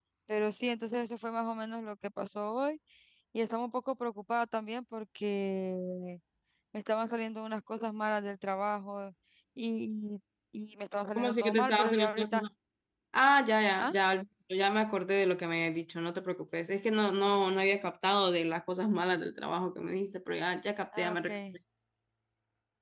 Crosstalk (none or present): present